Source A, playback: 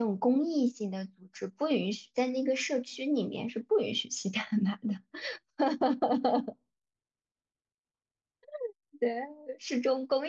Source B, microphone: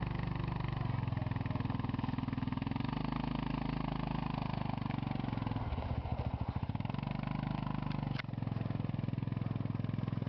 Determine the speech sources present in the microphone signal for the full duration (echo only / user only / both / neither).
neither